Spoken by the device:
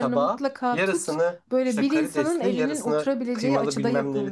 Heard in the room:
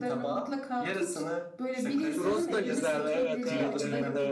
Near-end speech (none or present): present